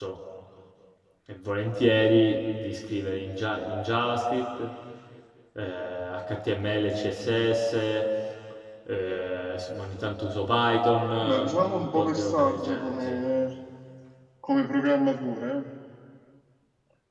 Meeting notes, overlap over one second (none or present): present